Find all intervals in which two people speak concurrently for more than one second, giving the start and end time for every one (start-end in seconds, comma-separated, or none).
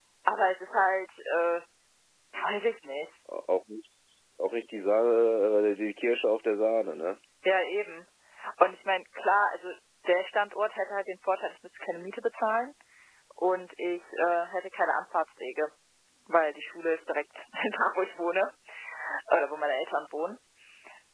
none